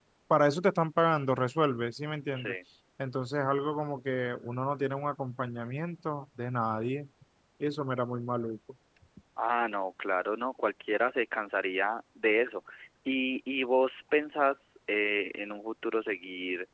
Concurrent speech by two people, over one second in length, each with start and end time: none

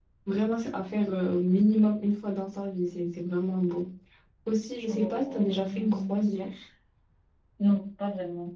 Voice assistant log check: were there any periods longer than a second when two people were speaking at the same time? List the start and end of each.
4.9-6.3

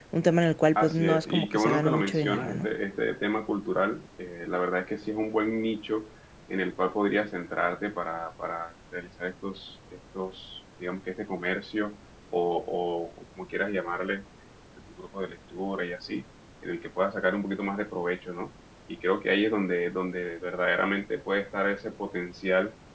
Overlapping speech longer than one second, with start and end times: 0.8-2.7

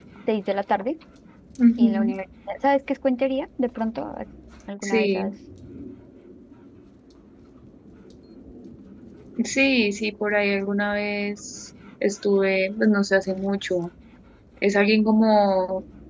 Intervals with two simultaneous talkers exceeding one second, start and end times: none

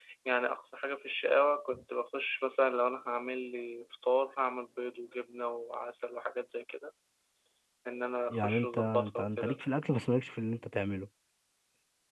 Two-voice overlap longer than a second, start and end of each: 8.3-9.6

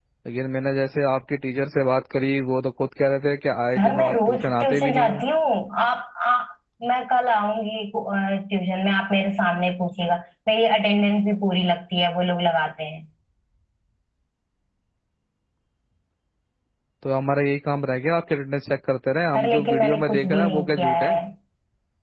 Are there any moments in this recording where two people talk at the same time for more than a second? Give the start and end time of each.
3.8-5.2, 19.3-21.1

